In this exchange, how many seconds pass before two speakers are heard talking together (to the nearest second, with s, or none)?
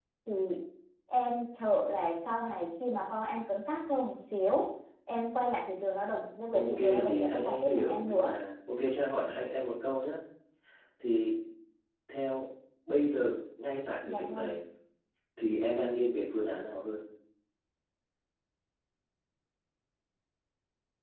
7 s